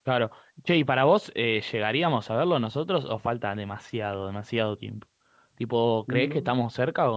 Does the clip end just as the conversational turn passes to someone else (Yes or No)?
No